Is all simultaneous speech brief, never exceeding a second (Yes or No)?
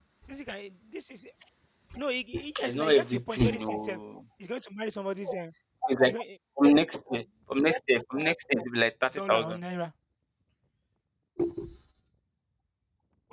No